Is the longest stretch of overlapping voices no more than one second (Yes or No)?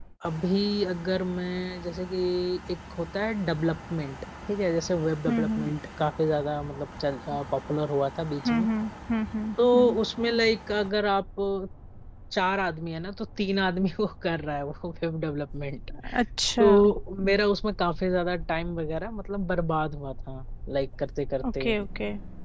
Yes